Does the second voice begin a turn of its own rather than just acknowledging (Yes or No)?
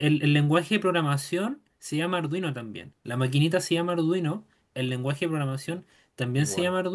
No